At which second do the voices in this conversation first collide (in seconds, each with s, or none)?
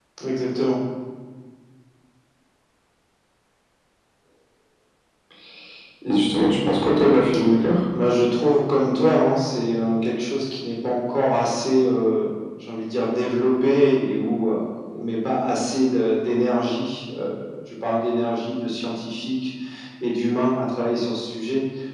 none